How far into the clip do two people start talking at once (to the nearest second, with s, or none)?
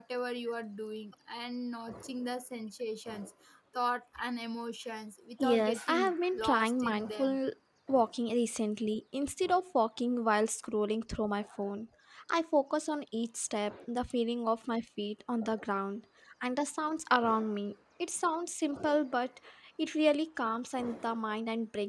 5 s